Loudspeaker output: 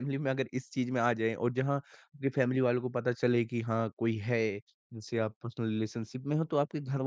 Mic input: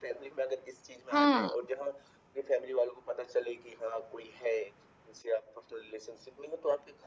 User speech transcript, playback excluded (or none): हाँ,